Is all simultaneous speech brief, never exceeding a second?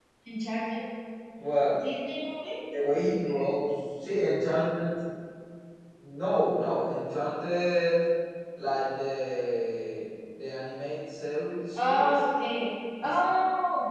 Yes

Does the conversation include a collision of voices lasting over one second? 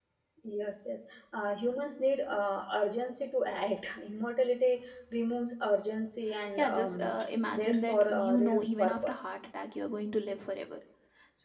Yes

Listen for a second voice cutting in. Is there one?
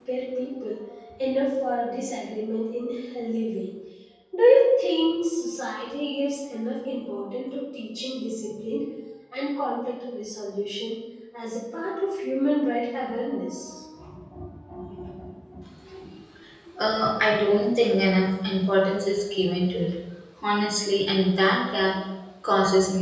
No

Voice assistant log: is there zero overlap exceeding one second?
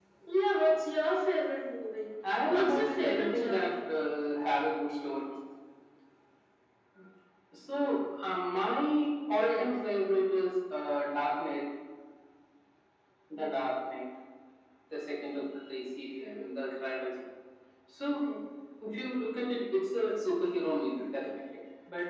No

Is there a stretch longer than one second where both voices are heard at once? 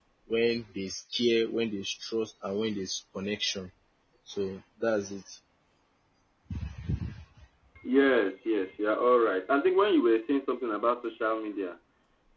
No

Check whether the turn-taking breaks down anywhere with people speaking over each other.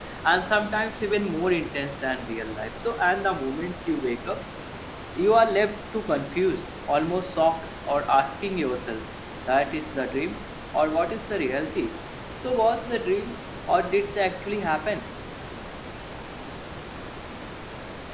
No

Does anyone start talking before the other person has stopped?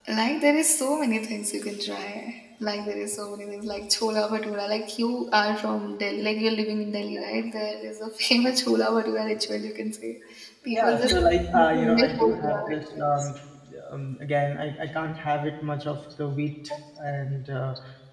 Yes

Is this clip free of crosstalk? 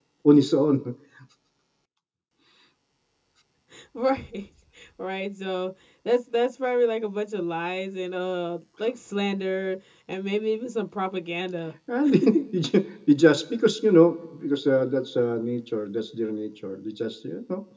Yes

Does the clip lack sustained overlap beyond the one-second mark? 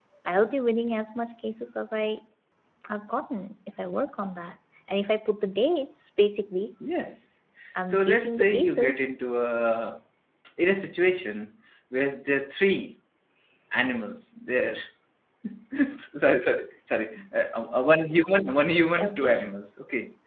No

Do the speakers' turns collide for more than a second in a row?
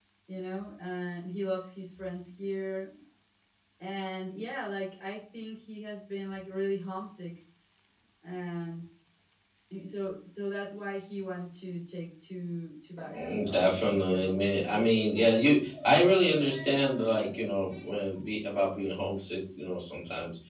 Yes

